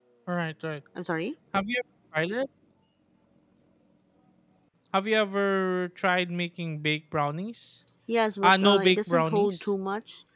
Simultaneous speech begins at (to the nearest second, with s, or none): 8 s